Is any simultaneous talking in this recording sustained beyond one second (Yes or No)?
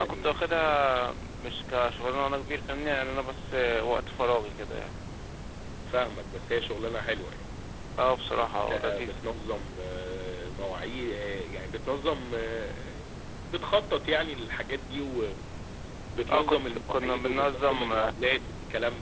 Yes